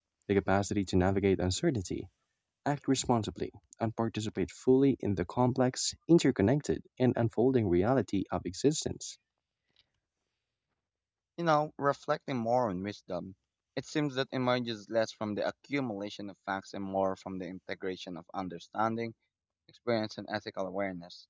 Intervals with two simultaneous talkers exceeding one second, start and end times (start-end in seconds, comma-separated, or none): none